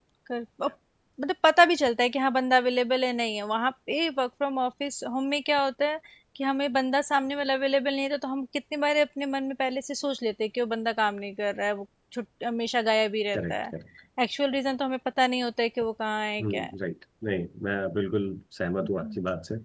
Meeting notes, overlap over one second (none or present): none